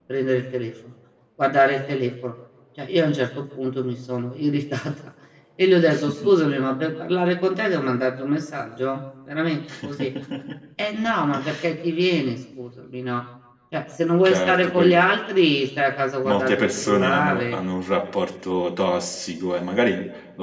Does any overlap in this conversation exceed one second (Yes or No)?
Yes